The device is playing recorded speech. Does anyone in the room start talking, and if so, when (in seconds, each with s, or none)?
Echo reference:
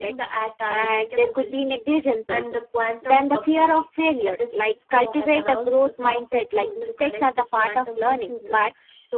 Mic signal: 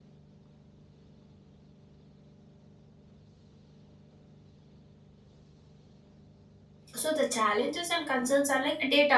6.9 s